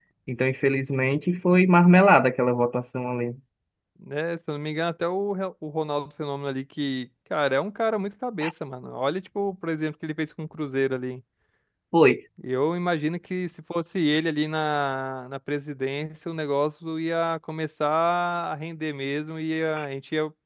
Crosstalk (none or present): none